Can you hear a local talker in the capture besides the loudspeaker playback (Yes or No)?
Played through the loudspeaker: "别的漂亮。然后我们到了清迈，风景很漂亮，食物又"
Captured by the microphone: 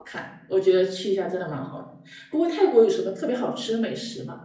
Yes